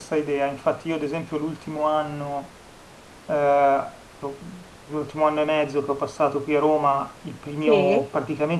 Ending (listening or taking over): listening